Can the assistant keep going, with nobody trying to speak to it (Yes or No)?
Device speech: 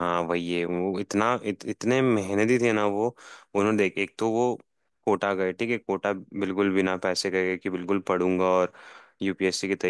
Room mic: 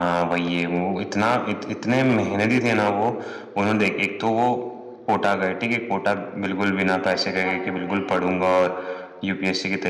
No